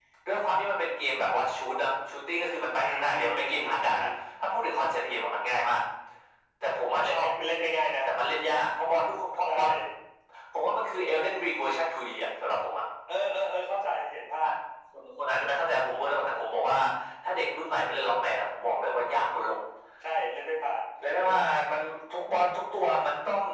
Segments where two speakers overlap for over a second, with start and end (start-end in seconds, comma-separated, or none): 2.8-4.0